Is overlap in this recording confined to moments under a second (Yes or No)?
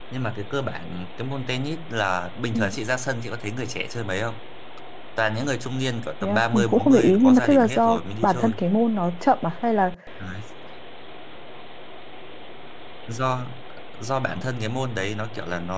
No